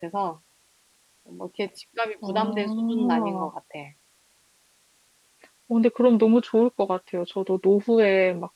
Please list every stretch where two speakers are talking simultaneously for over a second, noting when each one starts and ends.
2.3-3.5

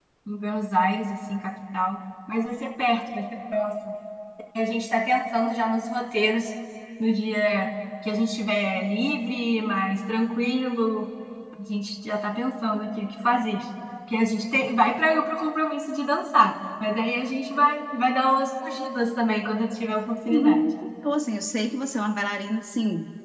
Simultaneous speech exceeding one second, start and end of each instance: none

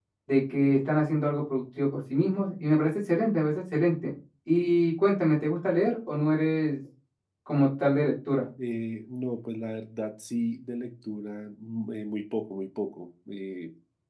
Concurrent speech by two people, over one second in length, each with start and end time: none

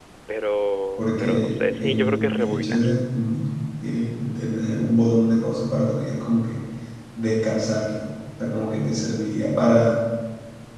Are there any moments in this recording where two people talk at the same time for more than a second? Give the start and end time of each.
1.0-2.8

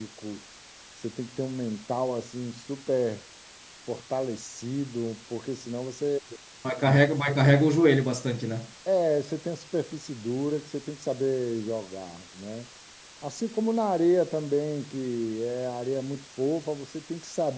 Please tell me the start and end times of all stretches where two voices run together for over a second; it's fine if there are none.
none

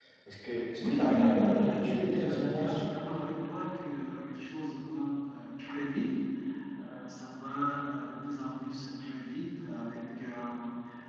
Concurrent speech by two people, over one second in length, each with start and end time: 0.8-2.8

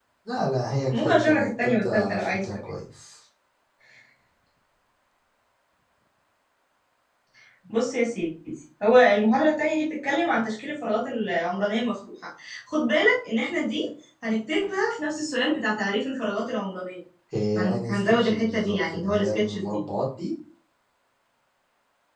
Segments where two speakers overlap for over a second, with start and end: 0.9-2.4, 17.6-19.8

